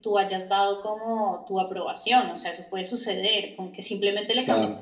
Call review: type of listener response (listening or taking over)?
listening